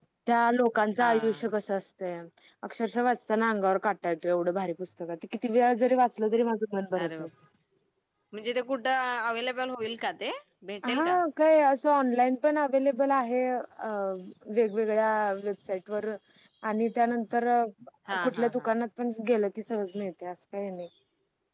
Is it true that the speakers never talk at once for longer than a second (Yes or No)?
Yes